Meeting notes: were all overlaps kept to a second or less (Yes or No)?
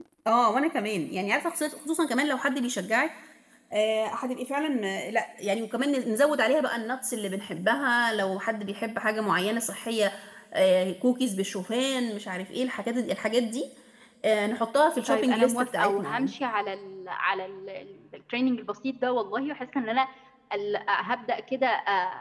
No